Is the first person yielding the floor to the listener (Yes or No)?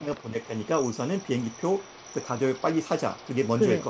Yes